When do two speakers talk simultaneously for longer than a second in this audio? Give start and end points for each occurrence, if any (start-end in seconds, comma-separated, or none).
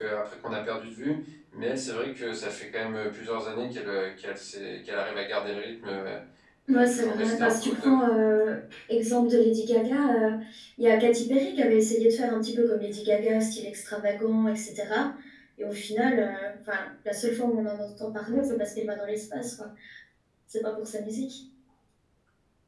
6.7-7.9